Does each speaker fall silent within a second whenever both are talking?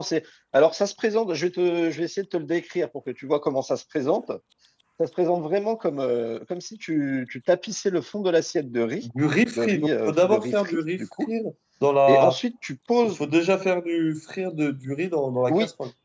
No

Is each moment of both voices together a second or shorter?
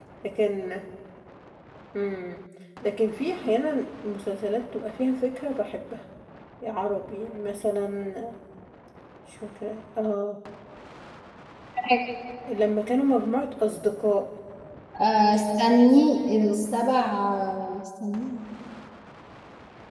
No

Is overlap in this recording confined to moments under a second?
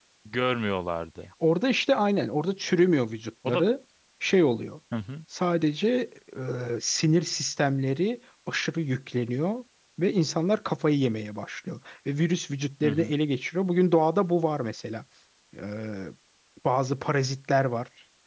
Yes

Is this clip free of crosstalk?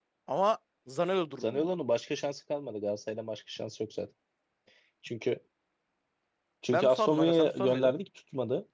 No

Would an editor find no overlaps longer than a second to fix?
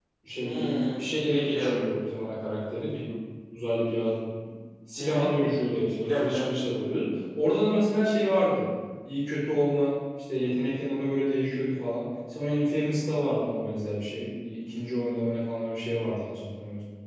Yes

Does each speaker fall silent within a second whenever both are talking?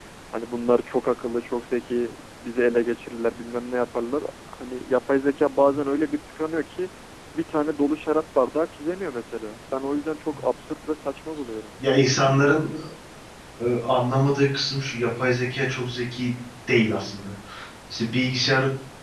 Yes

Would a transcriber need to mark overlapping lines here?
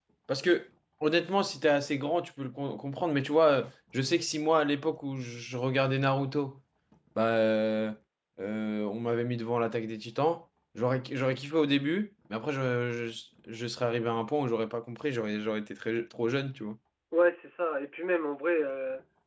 No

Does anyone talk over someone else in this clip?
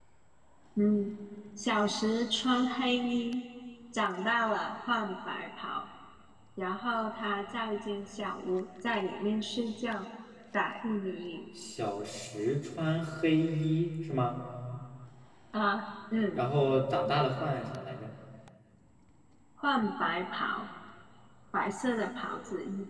No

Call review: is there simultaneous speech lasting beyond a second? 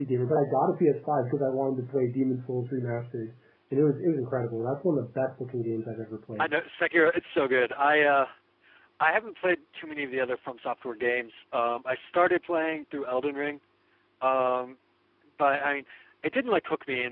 No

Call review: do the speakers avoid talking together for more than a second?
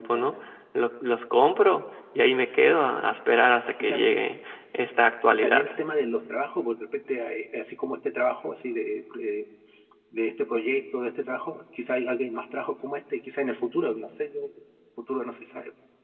Yes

